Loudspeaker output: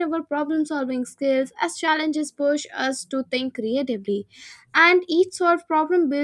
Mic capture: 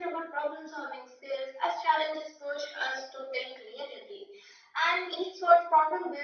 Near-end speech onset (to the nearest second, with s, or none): none